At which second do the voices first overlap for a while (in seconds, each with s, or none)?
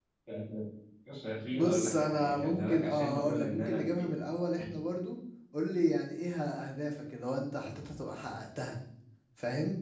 1.5 s